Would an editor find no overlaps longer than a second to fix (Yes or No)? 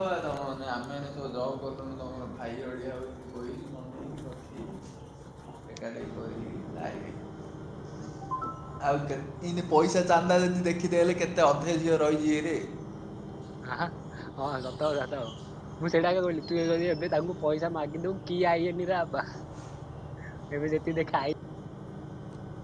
Yes